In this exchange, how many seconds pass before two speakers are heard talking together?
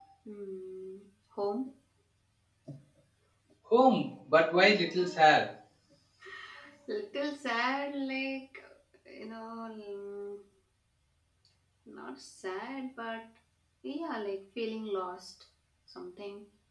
none

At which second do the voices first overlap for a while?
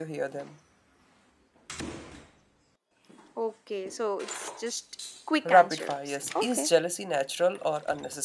5.5 s

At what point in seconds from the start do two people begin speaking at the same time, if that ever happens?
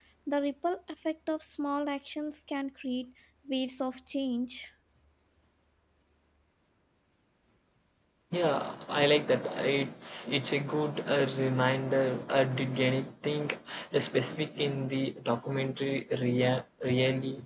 none

